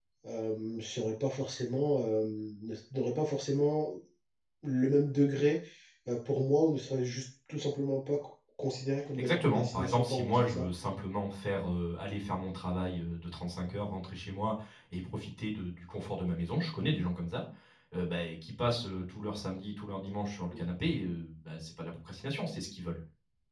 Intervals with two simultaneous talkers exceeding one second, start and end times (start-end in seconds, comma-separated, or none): 9.2-10.7